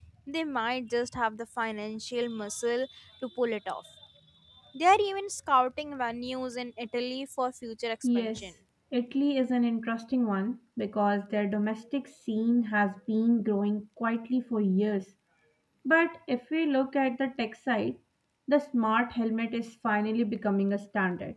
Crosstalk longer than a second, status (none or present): none